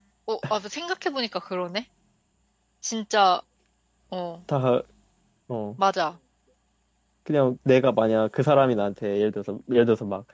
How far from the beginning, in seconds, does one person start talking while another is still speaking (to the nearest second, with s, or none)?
none